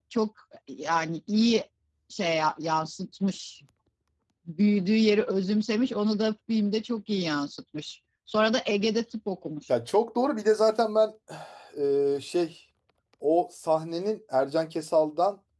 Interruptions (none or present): none